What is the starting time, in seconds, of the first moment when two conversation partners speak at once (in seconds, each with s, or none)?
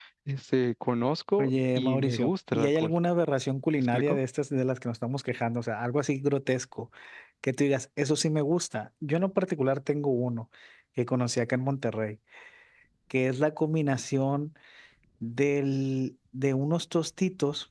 1.4 s